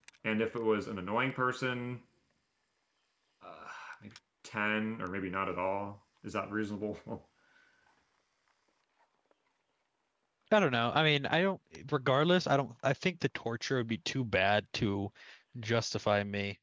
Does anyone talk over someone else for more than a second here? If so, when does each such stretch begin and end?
none

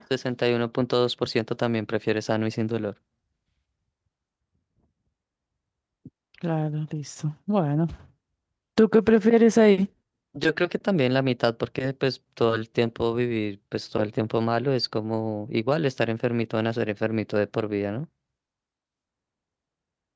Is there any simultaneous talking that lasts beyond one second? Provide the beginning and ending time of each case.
none

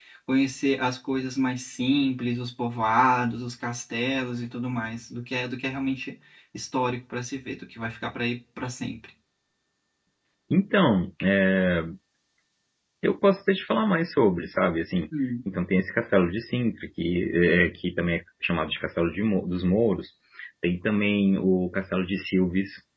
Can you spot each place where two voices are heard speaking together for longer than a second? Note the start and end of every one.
none

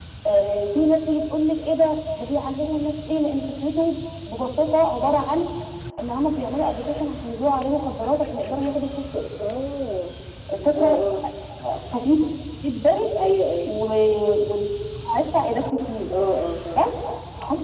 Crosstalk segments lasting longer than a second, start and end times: none

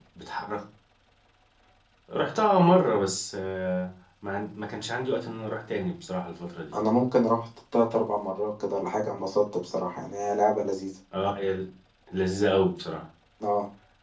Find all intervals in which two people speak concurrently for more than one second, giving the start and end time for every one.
none

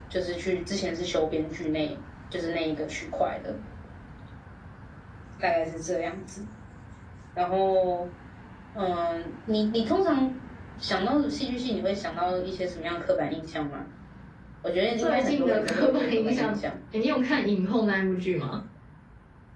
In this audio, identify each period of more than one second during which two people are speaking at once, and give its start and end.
15.0-16.6

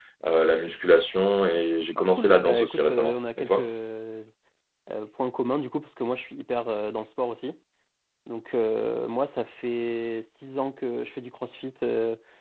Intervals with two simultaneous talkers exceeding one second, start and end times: 2.0-3.7

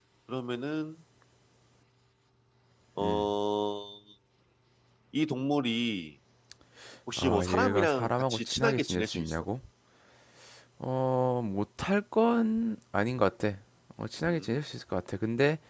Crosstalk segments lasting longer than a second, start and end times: 7.2-9.3

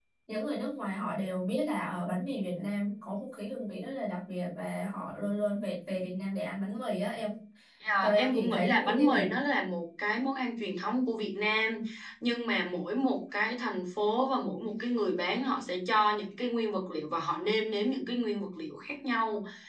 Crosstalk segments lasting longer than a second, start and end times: 8.0-9.2

